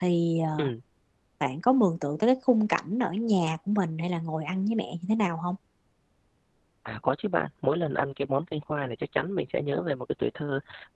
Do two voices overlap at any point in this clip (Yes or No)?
No